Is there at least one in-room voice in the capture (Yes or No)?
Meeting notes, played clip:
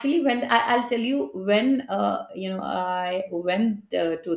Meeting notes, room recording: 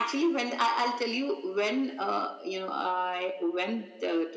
No